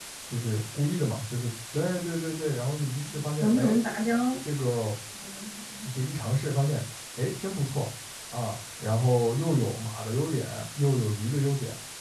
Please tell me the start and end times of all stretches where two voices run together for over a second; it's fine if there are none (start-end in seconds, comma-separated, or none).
none